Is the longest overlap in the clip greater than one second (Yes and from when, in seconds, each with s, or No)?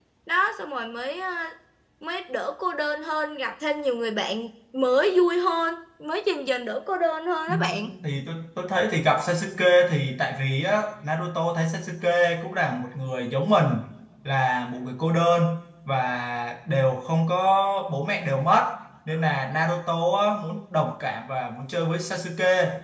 No